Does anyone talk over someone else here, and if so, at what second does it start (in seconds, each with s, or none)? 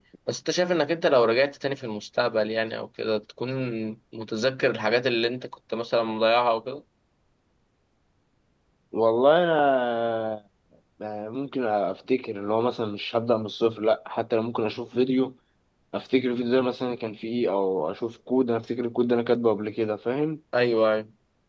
none